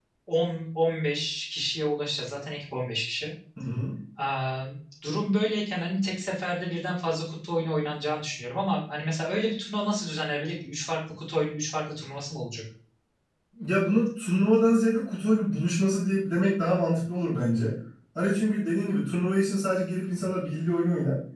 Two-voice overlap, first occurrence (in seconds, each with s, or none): none